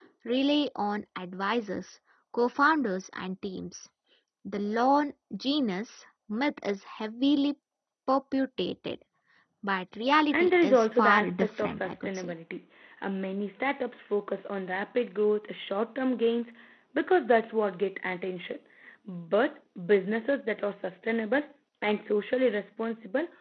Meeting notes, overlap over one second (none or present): present